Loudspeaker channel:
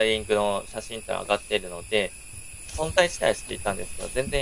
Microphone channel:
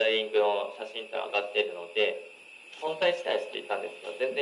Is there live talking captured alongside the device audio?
No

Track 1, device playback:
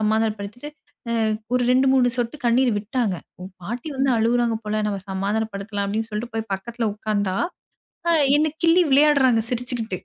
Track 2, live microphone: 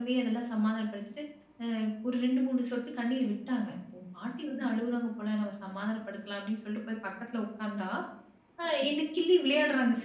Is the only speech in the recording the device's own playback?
Yes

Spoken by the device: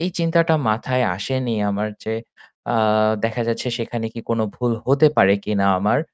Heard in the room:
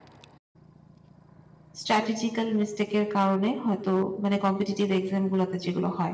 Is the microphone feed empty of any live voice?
No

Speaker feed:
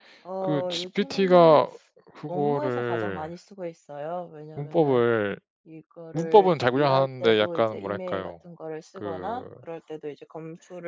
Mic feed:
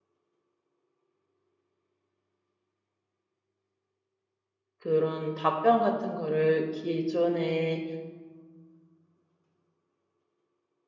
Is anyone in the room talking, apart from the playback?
Yes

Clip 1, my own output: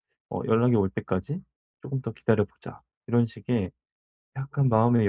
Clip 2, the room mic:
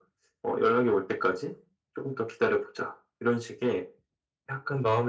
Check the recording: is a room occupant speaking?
No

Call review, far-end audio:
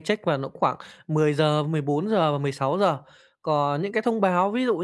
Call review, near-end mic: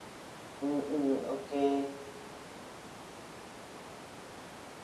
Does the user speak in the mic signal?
Yes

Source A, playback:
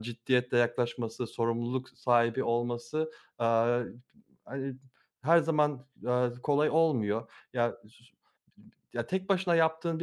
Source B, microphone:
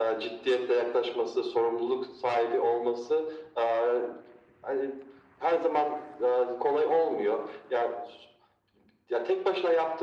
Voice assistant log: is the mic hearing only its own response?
Yes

